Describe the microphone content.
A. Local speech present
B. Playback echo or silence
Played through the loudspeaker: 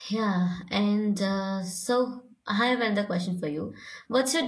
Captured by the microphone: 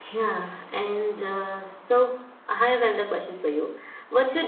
B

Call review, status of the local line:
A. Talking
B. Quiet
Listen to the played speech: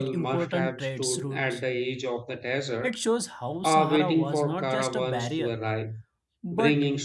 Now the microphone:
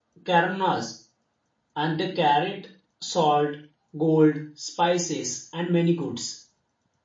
A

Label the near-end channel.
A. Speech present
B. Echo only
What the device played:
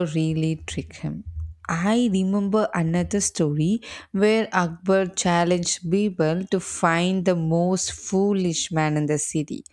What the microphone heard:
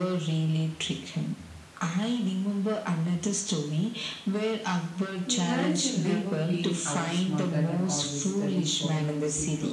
A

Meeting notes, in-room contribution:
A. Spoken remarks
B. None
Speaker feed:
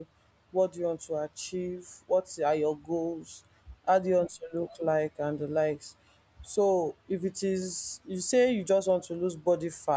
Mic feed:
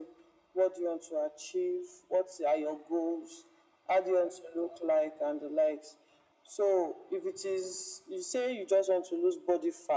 B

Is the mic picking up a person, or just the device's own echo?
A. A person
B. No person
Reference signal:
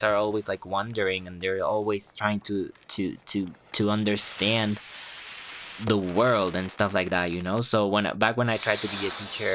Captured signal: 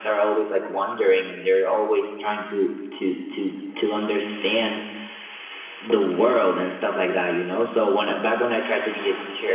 B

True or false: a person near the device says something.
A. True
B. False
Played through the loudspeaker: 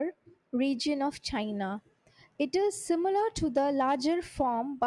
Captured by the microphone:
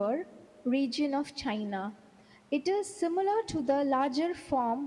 B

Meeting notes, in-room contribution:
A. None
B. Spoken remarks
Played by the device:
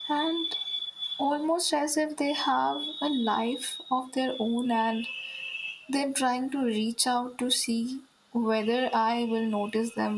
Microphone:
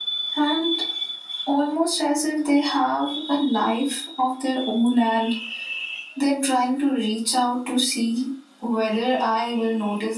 A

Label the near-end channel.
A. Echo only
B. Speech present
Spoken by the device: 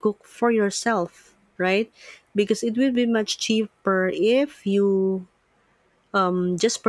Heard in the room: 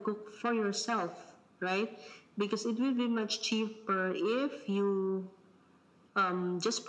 A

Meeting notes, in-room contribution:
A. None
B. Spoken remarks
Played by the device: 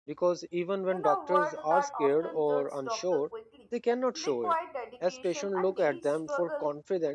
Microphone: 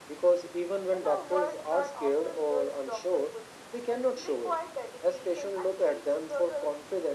A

